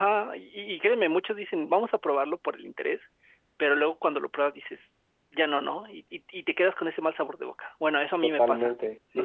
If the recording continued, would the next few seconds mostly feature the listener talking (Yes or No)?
Yes